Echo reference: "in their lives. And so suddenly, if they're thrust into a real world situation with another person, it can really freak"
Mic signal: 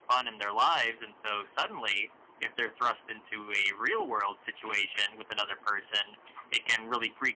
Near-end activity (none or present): none